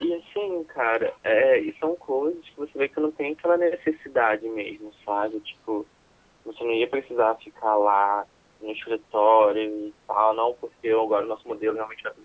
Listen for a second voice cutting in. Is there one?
No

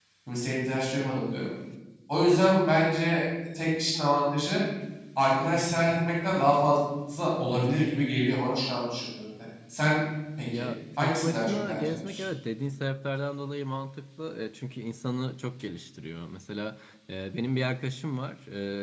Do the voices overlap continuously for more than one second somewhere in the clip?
Yes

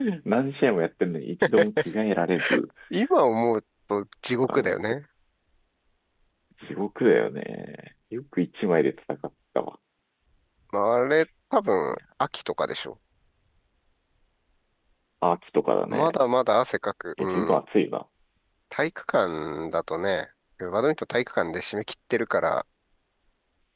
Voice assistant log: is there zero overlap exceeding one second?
Yes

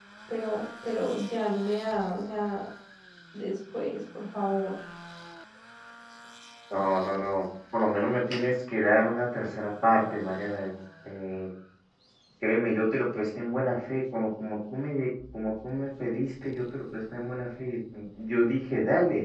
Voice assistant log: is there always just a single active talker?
Yes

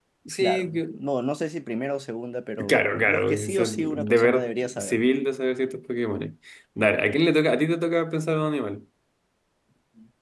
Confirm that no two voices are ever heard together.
No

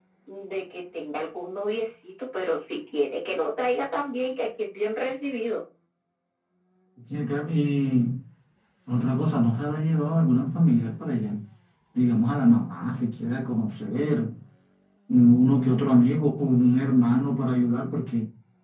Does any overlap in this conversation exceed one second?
No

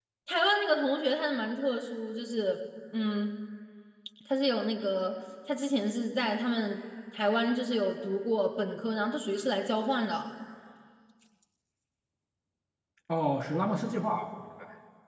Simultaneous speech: No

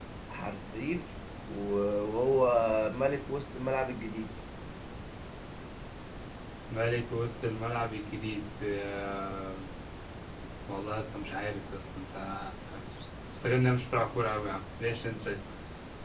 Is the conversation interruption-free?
Yes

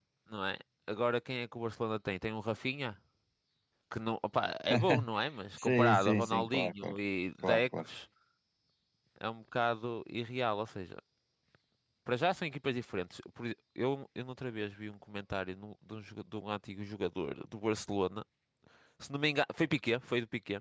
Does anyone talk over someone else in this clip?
Yes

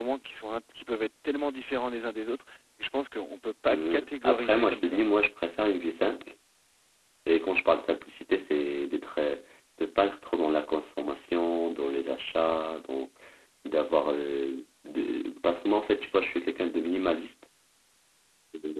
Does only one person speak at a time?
No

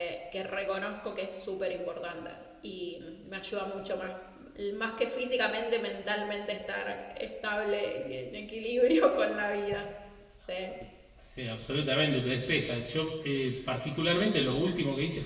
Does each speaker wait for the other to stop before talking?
Yes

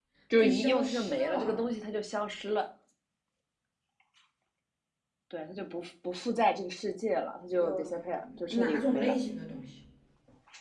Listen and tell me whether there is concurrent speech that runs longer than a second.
Yes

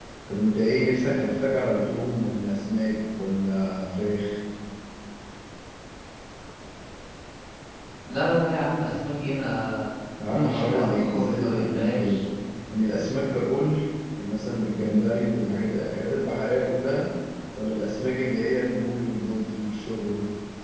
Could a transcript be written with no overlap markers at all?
No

